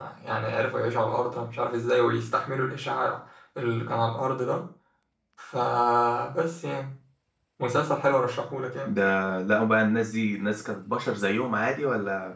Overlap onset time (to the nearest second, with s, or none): none